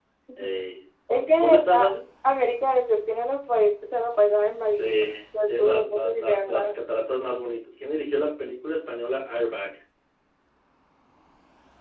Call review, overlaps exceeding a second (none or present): present